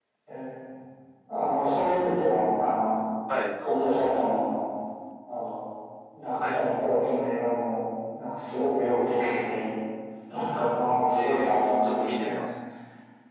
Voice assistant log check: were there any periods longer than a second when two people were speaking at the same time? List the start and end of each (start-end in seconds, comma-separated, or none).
11.2-12.4